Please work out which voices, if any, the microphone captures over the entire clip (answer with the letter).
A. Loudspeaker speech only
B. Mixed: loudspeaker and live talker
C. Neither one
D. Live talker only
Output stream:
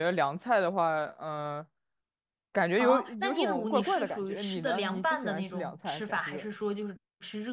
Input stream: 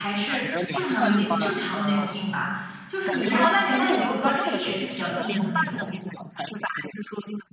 B